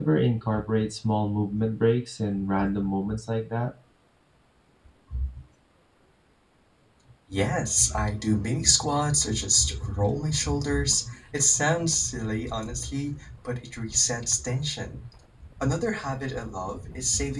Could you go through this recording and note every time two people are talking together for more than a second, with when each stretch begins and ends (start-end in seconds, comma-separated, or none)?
none